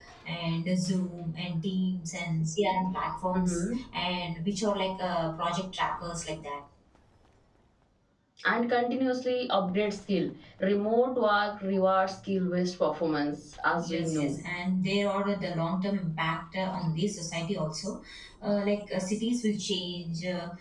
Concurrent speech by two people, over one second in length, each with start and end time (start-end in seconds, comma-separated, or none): none